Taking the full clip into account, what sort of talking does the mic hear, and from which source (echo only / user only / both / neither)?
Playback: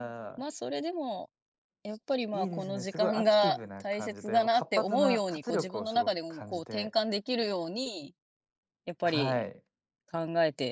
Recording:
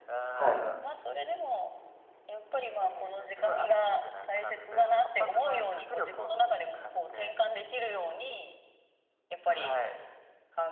both